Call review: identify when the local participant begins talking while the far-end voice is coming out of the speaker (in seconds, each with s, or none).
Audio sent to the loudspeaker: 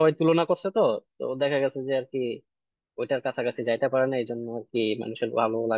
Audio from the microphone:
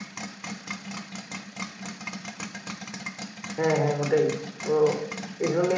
3.6 s